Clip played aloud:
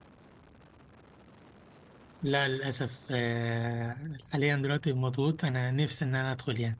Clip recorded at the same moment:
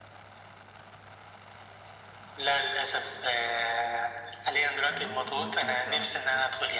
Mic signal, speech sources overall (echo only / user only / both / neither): both